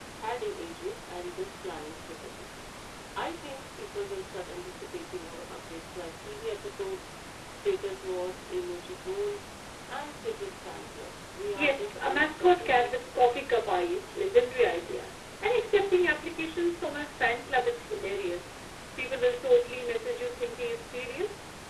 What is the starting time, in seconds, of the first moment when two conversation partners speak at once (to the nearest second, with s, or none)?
12 s